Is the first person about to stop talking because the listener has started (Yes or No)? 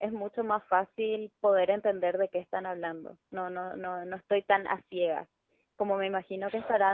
No